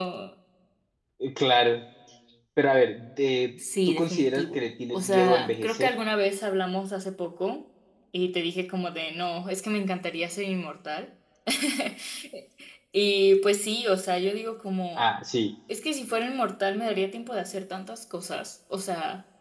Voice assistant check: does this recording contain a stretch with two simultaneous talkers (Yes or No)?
Yes